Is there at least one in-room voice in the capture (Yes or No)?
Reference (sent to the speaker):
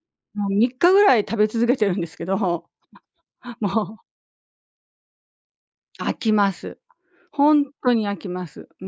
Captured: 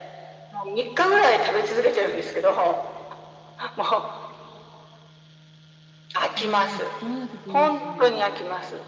Yes